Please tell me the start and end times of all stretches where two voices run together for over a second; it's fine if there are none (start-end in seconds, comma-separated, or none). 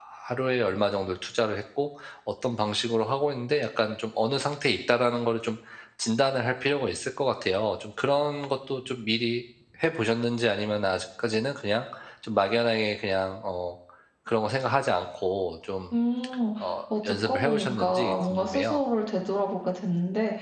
17.0-18.8